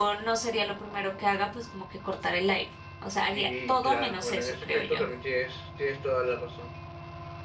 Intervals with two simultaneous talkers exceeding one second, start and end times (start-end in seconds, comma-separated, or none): 3.3-5.1